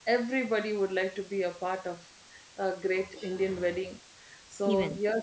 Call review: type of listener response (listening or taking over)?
listening